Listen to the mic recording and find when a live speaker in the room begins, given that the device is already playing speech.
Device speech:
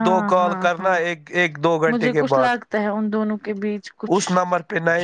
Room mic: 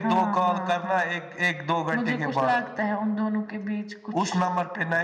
none

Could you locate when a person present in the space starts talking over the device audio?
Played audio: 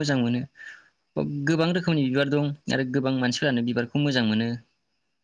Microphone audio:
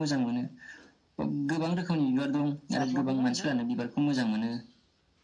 2.8 s

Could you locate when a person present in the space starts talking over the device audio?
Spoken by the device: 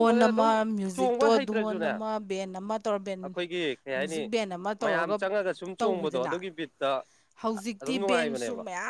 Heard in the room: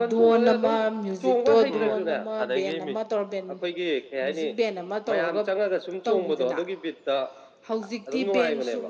1.7 s

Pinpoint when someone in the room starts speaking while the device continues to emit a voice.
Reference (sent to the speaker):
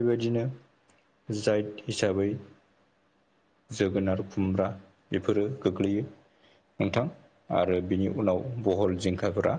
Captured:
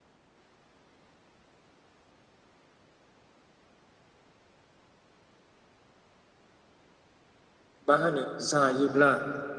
7.9 s

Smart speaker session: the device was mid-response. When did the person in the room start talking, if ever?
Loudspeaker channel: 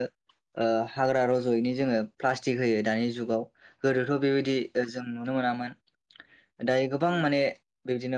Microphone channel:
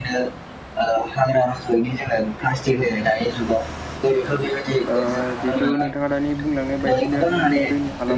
4.9 s

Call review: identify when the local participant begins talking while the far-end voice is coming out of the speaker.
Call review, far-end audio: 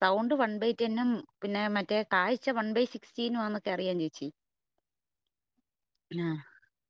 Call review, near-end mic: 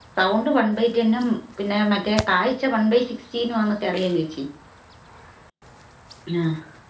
none

